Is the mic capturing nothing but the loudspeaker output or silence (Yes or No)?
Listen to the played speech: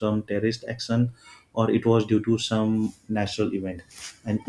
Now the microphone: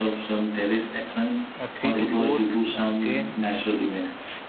No